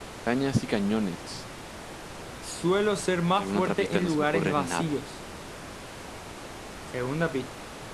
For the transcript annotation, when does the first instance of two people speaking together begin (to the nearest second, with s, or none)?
3 s